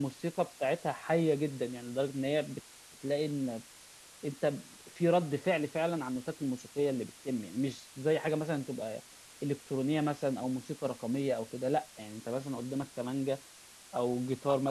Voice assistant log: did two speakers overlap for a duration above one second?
No

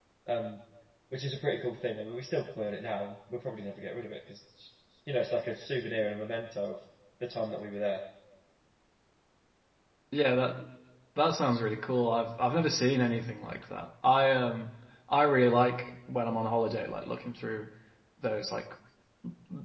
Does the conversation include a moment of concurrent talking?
No

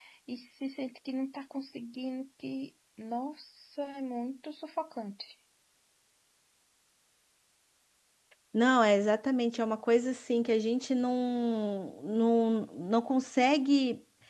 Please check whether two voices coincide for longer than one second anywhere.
No

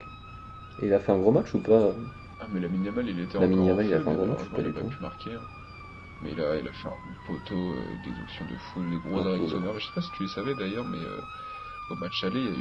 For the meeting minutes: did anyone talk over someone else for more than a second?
Yes, from 3.4 s

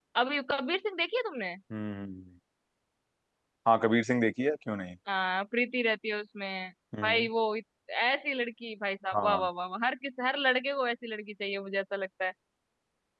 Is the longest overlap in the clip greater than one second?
No

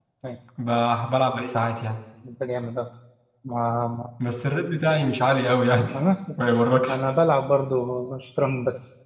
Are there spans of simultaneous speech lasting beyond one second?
No

